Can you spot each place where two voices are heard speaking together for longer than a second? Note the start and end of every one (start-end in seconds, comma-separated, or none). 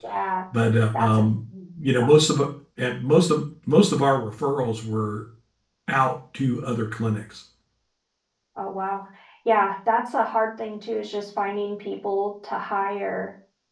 none